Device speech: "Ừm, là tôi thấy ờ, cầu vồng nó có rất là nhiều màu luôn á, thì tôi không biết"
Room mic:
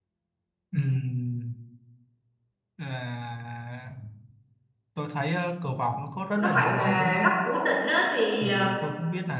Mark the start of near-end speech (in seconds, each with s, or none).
6.3 s